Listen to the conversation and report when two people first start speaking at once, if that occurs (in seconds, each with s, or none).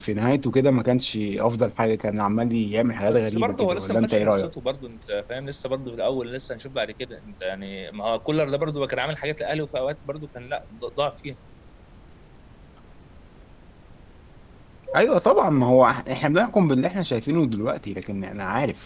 3.1 s